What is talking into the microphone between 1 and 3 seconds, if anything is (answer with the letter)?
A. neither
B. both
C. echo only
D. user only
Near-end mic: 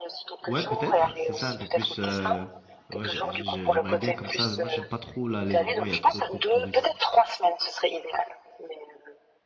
B